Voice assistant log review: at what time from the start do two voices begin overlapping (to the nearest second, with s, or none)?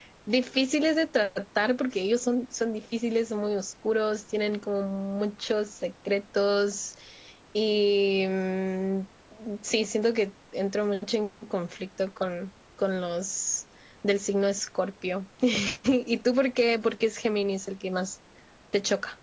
none